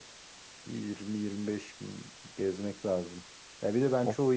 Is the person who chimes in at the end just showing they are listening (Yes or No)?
Yes